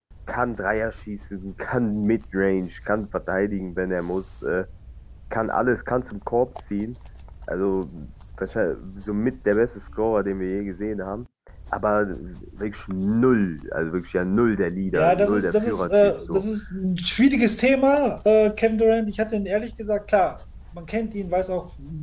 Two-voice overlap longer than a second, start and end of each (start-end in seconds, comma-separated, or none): 14.9-16.4